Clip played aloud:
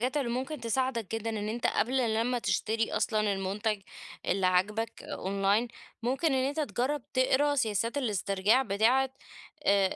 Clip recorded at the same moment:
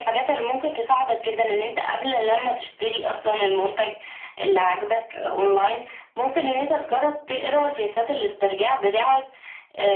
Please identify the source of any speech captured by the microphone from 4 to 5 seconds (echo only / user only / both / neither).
echo only